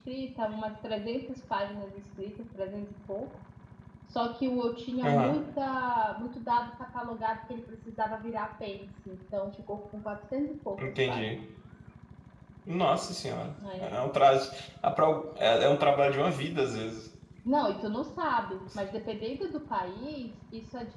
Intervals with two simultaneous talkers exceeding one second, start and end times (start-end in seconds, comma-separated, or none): none